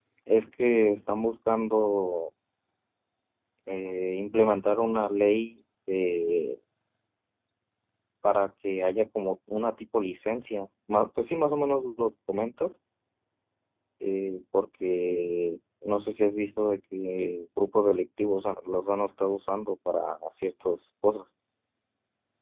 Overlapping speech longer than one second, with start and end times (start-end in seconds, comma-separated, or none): none